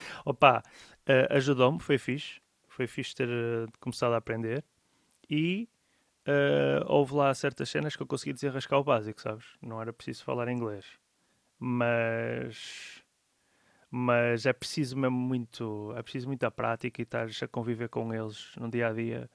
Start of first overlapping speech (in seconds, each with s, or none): none